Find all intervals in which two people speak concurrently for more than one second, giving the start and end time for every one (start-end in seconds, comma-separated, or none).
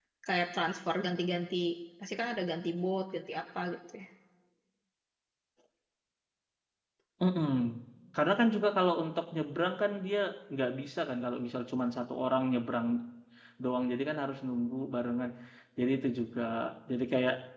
none